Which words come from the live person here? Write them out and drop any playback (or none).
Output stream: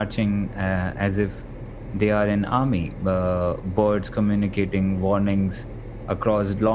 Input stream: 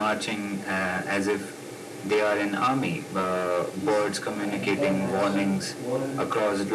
is the entire natural world